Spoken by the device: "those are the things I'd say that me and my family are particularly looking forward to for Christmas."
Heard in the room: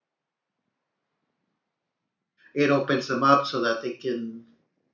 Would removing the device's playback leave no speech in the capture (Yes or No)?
No